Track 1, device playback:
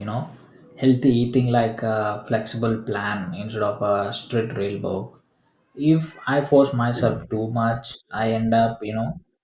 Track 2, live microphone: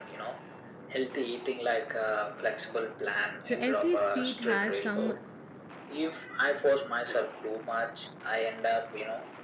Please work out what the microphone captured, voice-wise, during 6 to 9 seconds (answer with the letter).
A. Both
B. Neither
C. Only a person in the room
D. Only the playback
D